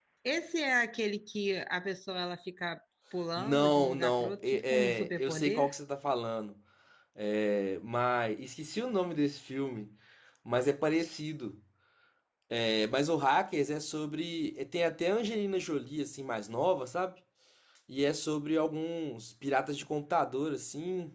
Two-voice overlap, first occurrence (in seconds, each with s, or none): 3.4 s